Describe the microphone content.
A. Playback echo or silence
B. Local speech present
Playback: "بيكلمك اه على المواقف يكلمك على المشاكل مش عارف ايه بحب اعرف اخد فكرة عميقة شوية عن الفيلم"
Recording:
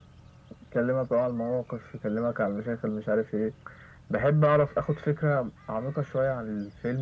A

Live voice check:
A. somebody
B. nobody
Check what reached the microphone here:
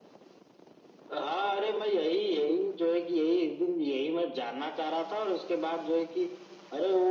B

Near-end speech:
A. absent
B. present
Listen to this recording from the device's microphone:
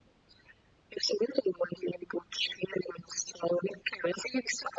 A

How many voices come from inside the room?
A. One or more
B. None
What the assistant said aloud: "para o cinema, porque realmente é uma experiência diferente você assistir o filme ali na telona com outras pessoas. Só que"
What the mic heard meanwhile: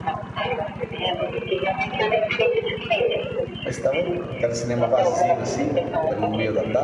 A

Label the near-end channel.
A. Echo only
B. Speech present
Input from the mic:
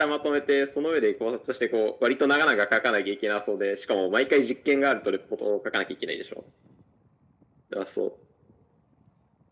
A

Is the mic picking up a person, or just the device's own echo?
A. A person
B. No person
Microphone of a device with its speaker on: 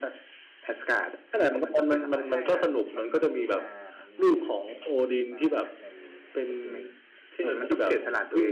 A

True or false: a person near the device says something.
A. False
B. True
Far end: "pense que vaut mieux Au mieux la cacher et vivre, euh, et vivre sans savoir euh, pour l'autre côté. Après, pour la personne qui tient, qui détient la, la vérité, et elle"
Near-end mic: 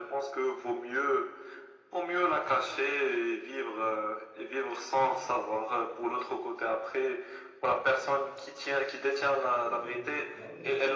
B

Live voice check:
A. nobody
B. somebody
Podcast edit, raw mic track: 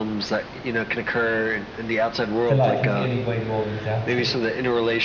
B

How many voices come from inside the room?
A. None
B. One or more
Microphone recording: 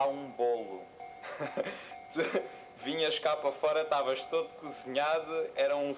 A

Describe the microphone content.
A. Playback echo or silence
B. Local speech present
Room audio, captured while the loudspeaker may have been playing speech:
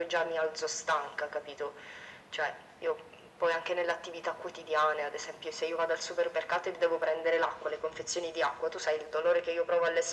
A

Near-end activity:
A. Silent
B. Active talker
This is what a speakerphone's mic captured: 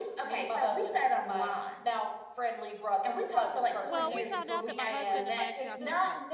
B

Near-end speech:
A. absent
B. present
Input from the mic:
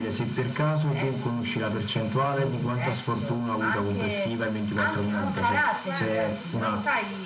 B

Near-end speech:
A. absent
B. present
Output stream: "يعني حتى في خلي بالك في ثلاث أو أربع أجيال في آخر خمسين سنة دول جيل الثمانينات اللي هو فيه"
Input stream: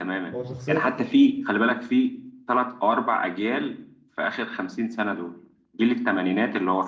B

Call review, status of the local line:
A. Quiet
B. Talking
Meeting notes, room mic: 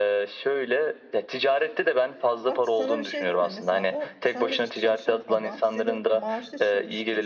B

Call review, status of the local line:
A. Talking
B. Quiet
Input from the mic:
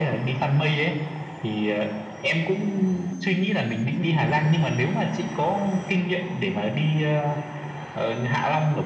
B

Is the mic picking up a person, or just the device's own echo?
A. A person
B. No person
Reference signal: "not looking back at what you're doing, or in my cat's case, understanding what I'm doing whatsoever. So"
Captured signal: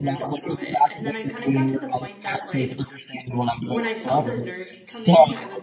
A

